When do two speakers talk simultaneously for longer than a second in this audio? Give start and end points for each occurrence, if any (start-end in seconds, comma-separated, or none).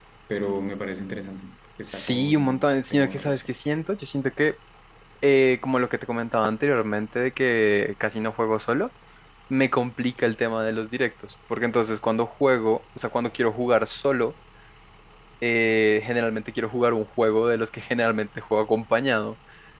1.9-3.4